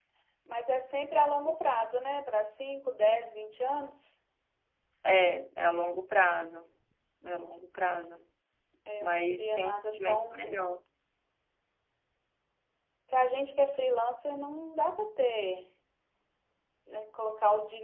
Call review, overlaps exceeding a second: present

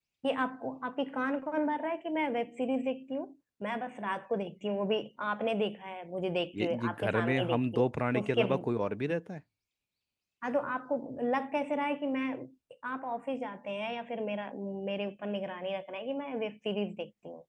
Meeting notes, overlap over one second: present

